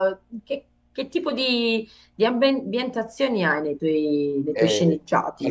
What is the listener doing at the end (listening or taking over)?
taking over